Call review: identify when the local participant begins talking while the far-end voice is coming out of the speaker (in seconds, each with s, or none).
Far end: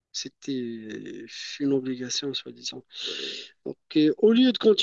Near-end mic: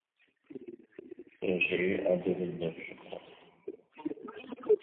1.4 s